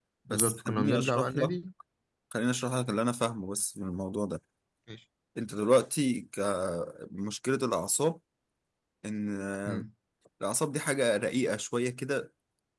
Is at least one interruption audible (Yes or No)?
Yes